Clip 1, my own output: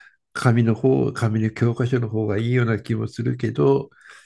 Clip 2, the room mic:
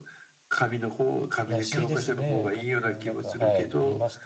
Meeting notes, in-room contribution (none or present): present